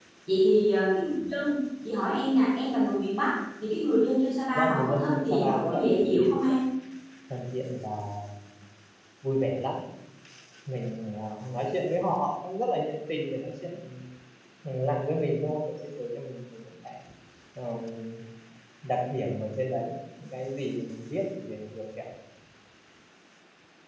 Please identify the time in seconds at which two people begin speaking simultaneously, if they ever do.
4.6 s

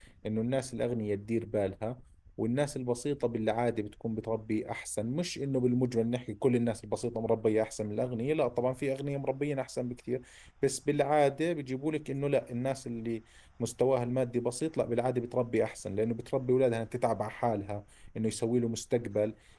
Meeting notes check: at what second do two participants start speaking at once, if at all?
none

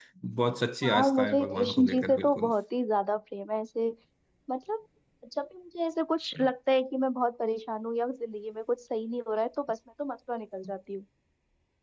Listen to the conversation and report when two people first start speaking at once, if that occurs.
0.8 s

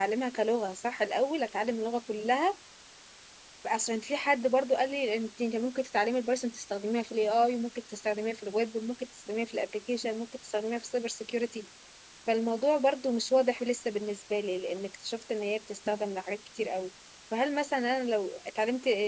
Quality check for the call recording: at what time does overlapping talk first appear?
none

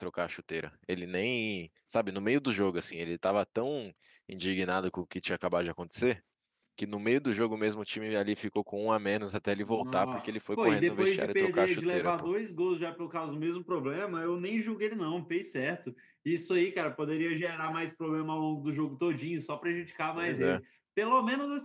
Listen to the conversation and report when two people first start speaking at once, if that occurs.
9.7 s

